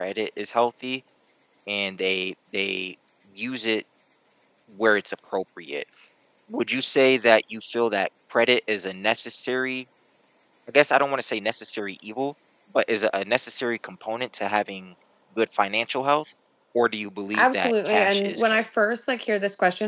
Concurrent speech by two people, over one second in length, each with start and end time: 17.4-18.6

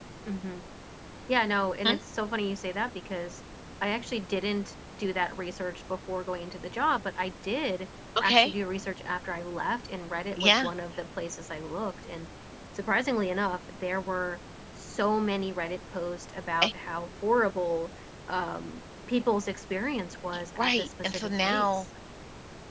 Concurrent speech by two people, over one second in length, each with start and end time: 20.6-21.8

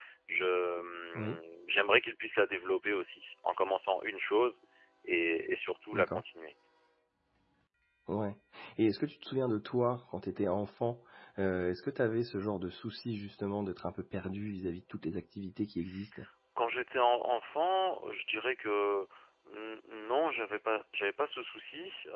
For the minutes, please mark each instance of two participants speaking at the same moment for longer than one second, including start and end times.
none

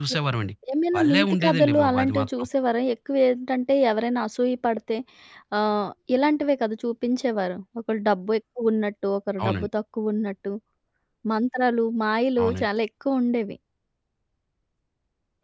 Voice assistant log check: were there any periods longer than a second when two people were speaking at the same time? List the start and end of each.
1.0-2.5

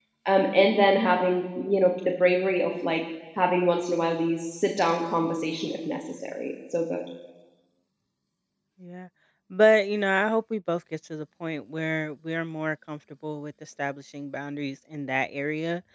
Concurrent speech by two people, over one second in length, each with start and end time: none

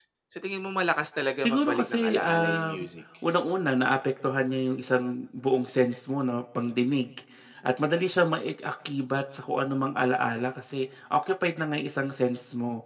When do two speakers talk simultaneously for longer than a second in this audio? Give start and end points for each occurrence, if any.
1.4-2.9

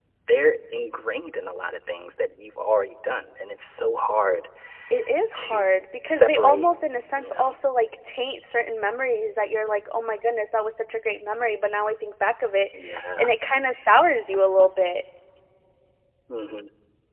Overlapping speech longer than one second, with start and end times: 5.3-6.7

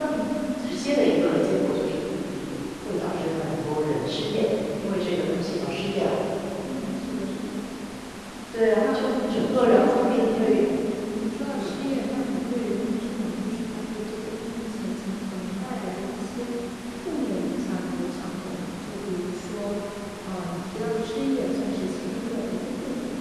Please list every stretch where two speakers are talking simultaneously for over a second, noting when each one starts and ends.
8.8-10.5

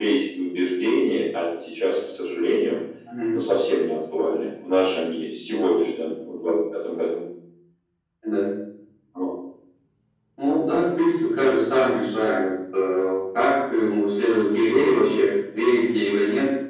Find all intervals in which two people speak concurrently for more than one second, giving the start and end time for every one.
none

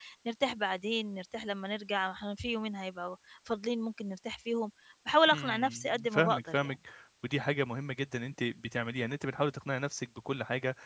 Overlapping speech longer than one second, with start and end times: 5.3-6.7

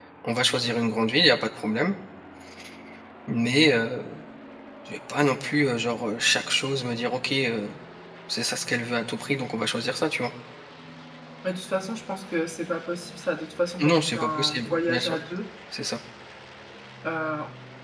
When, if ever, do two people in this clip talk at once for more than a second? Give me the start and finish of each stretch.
13.9-15.2

